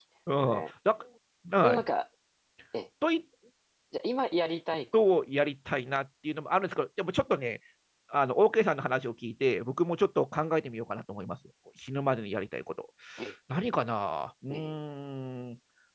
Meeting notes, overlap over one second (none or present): none